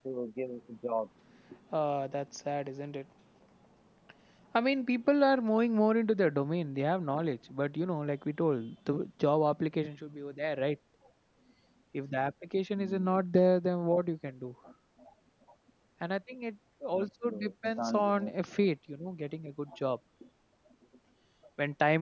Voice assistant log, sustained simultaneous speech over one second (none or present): present